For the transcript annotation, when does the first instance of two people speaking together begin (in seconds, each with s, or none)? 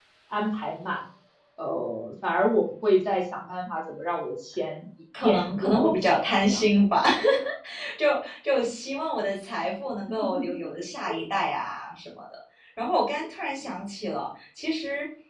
5.2 s